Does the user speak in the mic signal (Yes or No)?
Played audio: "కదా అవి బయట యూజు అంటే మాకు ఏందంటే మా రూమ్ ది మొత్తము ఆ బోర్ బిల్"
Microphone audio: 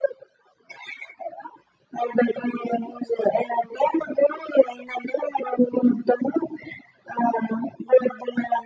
No